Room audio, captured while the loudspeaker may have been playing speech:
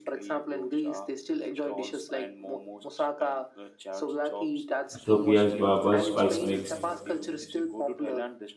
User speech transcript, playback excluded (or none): Ethiopia has barber spice mix.